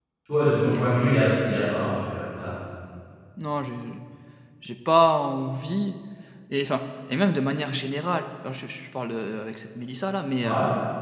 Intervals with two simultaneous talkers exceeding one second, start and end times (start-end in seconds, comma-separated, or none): none